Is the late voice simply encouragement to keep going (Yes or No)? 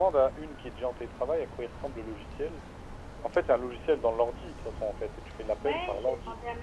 No